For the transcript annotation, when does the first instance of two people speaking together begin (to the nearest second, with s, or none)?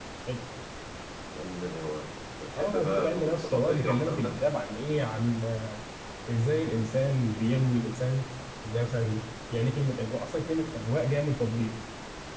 3 s